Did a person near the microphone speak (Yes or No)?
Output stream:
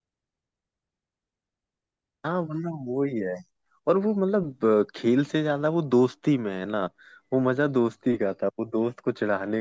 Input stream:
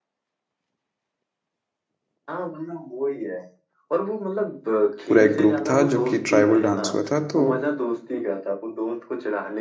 Yes